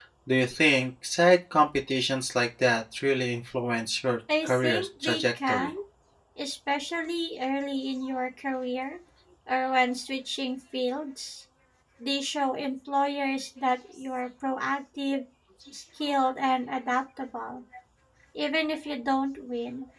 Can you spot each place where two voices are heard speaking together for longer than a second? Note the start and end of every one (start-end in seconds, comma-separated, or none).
4.4-5.7